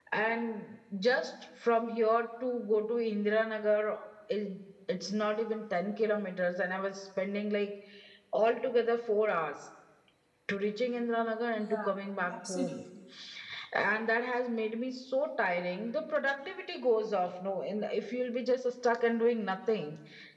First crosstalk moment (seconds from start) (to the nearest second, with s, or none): 12 s